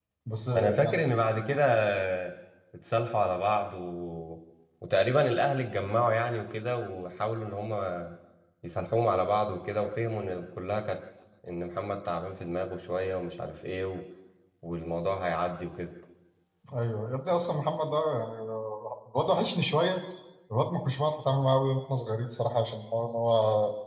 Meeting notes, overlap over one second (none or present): none